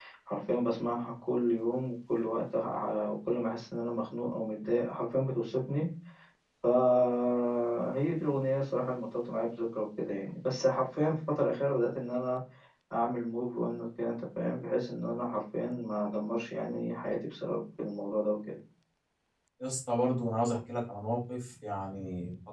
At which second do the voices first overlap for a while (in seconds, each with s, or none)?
none